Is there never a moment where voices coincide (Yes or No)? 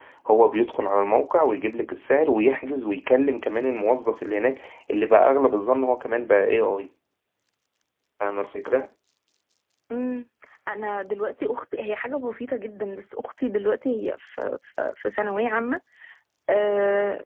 Yes